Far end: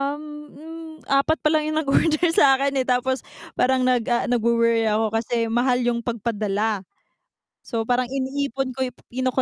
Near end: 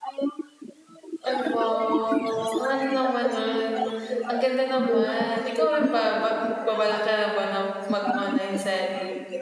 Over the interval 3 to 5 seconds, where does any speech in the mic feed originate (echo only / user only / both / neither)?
both